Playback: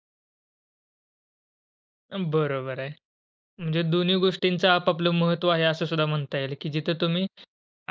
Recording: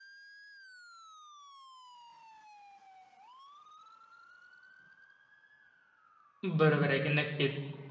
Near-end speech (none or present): present